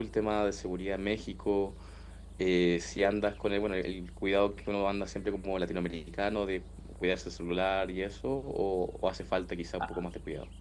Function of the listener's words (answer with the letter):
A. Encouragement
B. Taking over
B